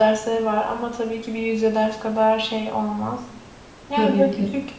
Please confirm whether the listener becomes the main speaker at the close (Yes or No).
No